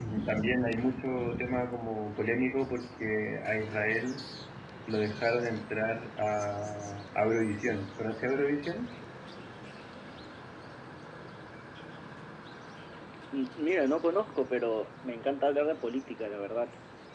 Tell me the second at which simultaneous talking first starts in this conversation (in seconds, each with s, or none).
none